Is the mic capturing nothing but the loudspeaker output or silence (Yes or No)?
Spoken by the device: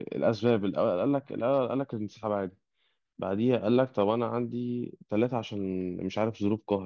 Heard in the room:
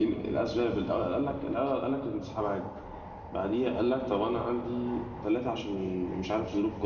Yes